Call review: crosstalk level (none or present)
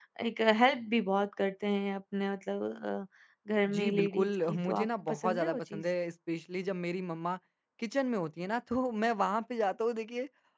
present